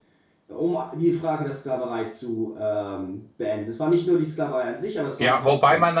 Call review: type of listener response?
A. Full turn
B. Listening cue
A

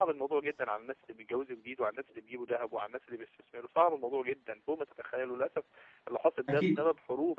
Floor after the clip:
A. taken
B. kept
B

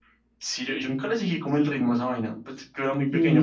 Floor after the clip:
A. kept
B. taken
B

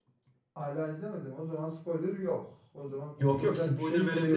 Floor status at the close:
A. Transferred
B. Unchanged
A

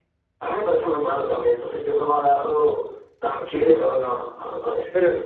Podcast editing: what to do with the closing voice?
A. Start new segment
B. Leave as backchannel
A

